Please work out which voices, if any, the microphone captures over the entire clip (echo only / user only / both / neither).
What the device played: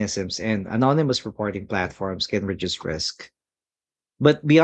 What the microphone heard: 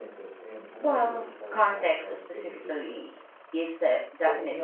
both